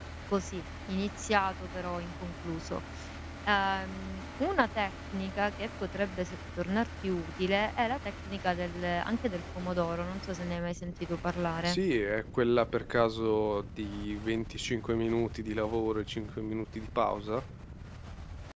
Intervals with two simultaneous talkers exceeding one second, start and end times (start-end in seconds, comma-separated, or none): none